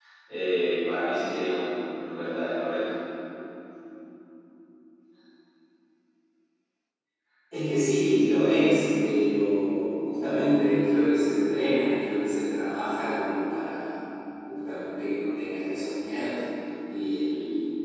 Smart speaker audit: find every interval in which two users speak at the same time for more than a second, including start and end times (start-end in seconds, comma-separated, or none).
none